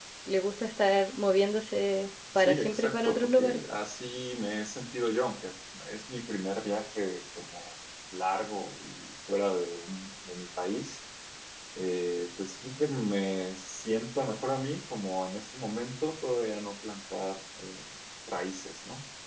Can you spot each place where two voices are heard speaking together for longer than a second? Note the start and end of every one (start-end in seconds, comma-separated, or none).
2.4-3.6